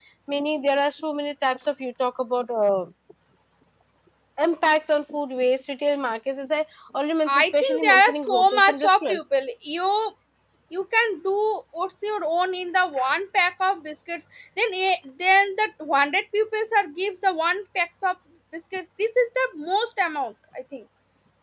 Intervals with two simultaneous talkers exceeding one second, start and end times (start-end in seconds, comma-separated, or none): 7.3-9.2